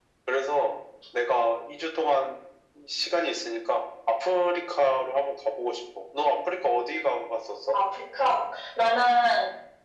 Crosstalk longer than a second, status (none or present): none